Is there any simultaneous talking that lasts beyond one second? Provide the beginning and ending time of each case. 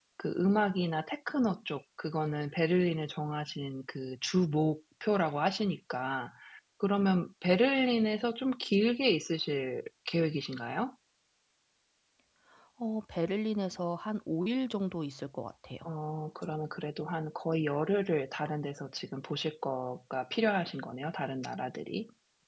none

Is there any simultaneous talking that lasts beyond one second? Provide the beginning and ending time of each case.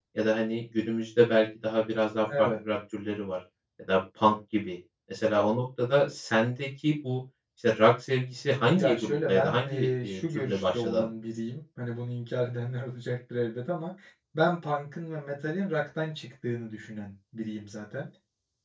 8.8-11.1

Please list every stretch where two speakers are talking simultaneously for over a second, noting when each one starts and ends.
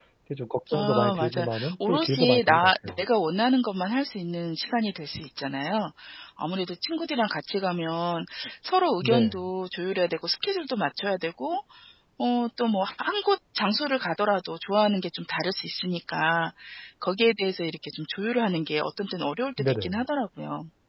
0.7-3.0

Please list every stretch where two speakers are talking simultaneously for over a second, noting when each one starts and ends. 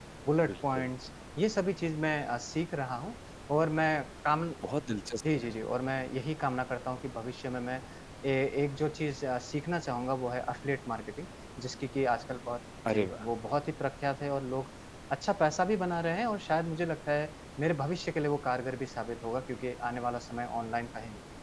none

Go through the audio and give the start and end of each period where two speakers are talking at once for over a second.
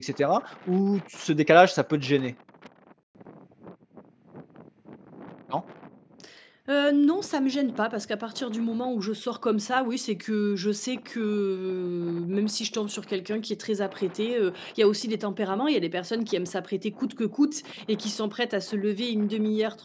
none

